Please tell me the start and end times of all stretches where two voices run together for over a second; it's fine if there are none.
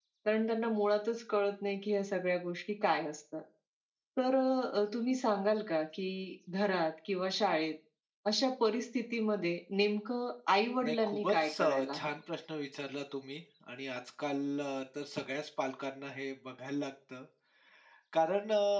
10.8-12.1

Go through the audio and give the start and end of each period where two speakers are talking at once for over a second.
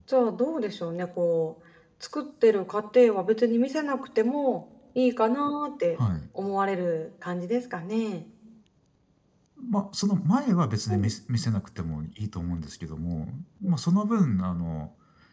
none

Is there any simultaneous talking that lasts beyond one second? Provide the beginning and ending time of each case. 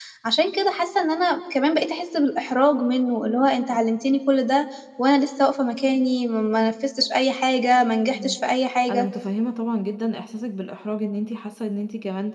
none

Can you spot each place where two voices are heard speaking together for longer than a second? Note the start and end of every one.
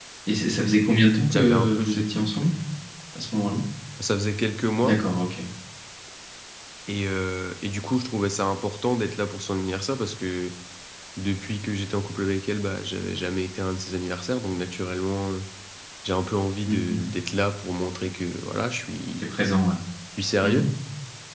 1.3-2.5

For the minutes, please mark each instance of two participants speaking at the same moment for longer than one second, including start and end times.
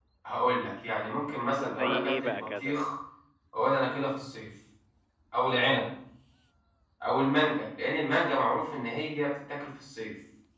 1.3-2.9

